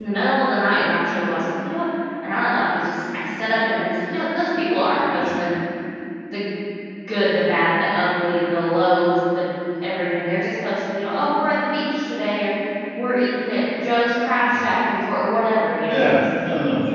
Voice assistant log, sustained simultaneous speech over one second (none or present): none